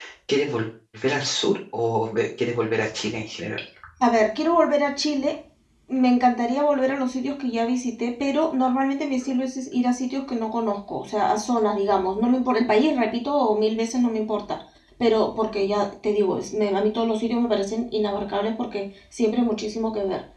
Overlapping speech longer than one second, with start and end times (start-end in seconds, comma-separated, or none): none